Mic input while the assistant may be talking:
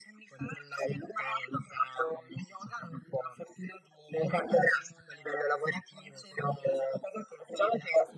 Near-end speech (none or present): none